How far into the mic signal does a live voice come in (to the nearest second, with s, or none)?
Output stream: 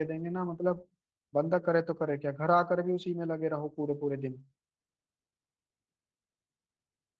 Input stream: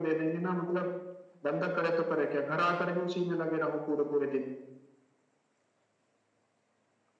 none